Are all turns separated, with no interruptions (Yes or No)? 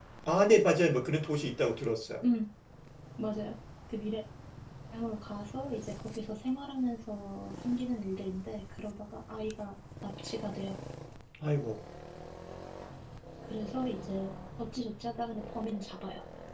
Yes